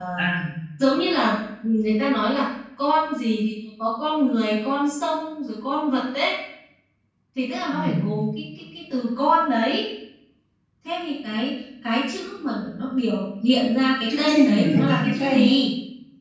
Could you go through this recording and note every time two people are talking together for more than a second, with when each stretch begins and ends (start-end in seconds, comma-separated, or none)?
14.2-15.5